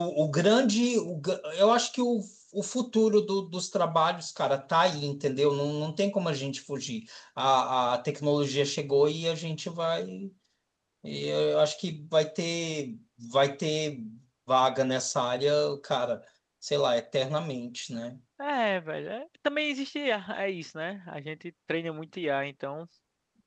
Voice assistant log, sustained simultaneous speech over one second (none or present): none